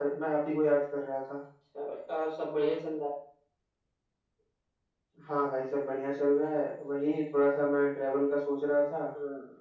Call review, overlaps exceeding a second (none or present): none